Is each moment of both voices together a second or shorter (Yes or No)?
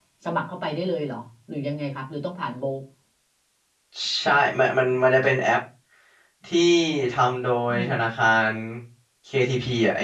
Yes